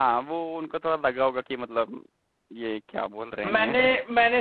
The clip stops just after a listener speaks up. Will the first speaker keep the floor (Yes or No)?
No